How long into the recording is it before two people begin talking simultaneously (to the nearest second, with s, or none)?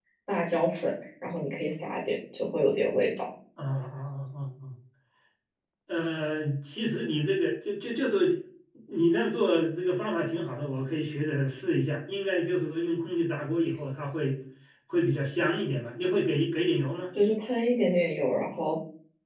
none